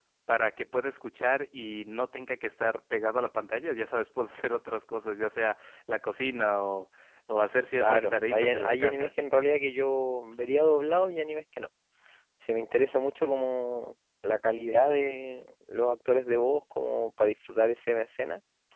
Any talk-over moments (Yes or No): Yes